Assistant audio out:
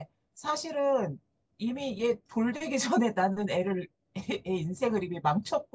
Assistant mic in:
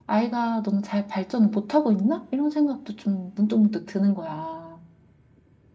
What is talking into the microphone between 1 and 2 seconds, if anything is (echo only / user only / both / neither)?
user only